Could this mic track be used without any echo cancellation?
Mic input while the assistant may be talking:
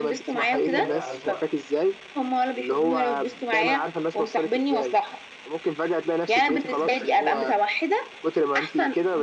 No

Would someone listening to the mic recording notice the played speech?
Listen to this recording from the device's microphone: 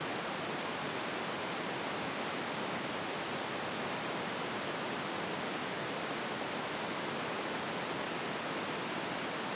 No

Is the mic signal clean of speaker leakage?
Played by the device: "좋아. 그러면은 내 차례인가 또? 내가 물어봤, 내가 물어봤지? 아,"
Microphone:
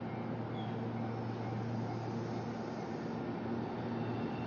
Yes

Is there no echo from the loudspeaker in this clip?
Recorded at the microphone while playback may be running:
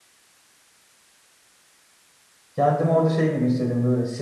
Yes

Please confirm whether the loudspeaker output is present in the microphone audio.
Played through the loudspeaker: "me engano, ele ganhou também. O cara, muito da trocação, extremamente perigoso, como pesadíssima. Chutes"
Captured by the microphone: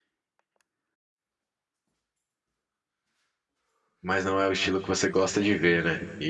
No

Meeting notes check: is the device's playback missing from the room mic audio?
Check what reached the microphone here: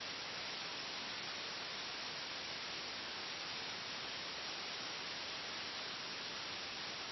Yes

